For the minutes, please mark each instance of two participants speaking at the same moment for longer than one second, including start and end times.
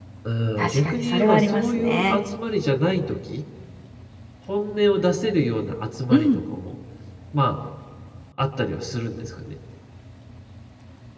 0.6-2.2

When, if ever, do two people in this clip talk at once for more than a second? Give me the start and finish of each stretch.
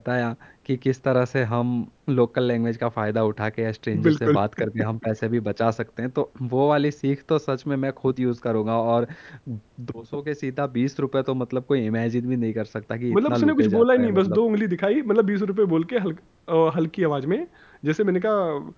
13.1-14.4

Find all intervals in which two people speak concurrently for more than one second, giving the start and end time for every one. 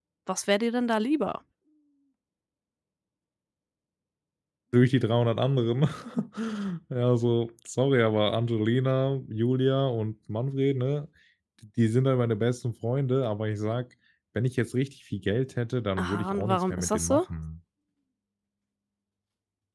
16.0-17.2

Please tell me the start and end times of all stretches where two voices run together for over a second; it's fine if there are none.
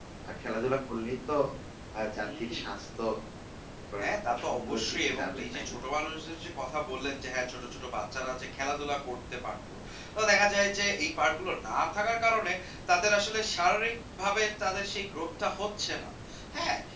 4.0-5.8

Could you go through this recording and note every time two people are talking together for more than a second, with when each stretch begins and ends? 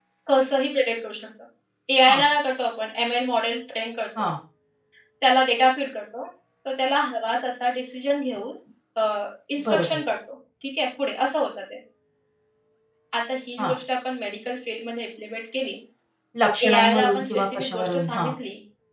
16.7-18.3

